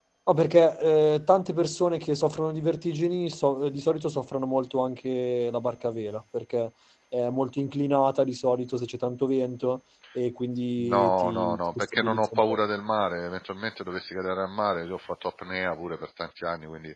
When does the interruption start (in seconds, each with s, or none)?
10.8 s